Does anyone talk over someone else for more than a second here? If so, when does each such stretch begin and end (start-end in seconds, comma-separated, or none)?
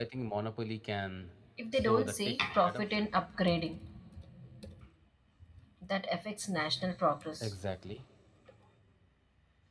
1.7-3.1